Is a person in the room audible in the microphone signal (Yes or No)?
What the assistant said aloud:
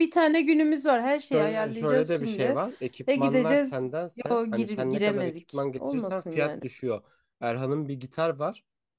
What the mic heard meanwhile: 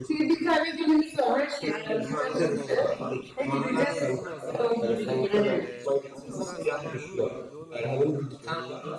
Yes